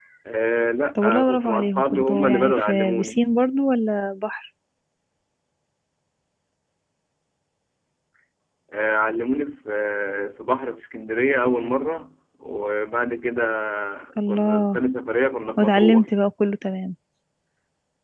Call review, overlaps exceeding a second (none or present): present